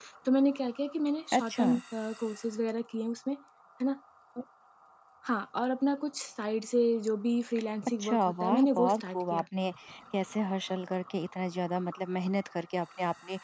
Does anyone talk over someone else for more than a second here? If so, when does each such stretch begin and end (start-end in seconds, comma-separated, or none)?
8.0-9.4